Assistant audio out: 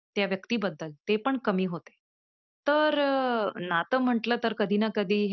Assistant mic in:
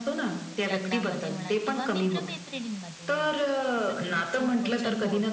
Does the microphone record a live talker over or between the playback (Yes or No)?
Yes